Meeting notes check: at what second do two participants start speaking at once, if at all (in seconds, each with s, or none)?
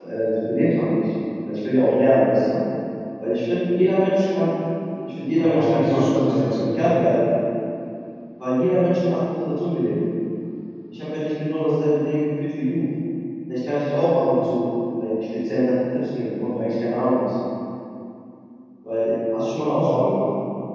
5.4 s